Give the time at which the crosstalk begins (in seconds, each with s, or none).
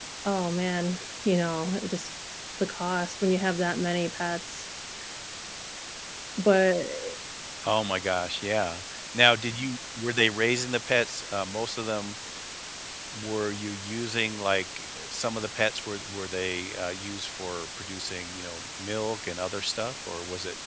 none